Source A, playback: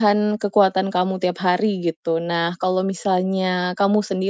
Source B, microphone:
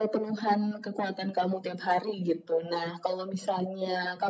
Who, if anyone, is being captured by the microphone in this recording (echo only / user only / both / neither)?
echo only